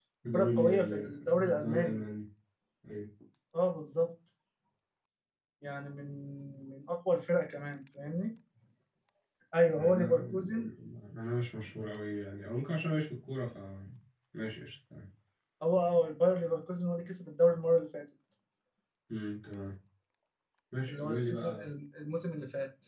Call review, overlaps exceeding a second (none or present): present